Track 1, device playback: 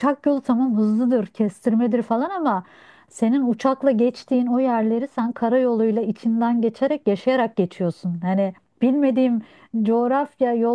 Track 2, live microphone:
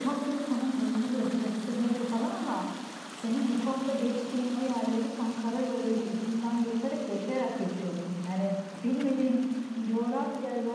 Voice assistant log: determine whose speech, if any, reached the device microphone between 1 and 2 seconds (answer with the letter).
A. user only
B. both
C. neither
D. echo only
D